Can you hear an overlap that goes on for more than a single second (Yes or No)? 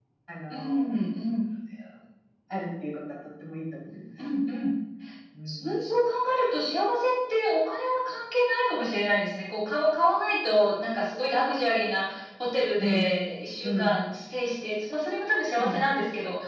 No